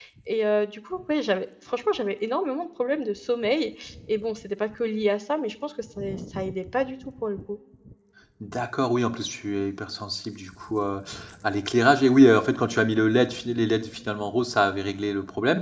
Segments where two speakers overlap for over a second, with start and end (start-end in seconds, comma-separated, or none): none